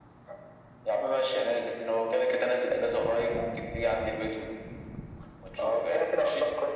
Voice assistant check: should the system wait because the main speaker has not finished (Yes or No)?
No